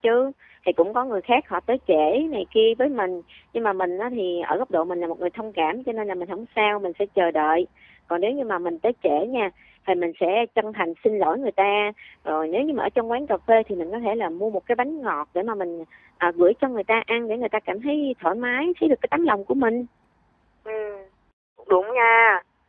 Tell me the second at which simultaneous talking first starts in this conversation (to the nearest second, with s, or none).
none